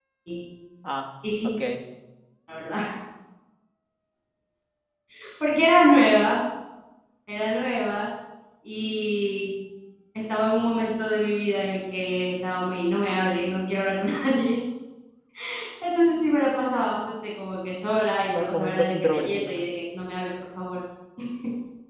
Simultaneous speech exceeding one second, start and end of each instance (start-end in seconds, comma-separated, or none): 18.3-19.5